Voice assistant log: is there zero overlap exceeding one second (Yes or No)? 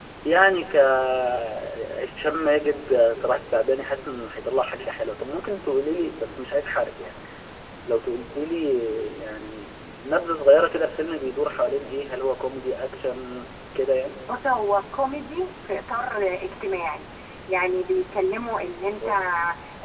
Yes